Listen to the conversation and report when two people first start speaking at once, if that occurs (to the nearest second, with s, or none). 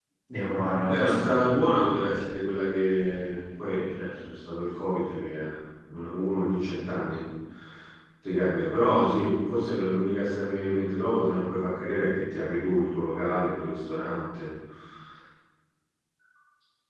1 s